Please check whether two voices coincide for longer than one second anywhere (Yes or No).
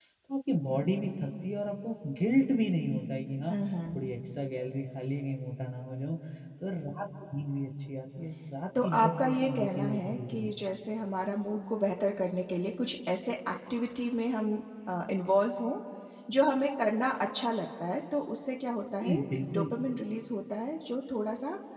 Yes